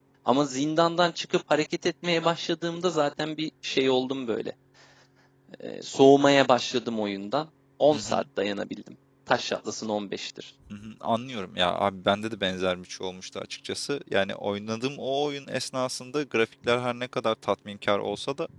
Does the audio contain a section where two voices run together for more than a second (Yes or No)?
No